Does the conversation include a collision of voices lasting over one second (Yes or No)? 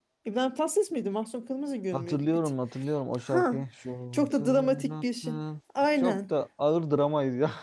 Yes